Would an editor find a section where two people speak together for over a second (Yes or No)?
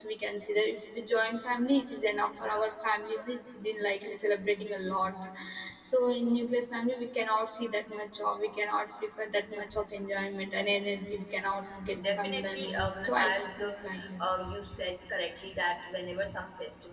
Yes